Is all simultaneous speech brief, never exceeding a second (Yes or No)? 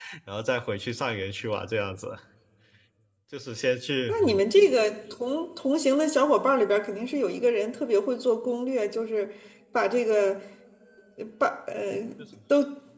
Yes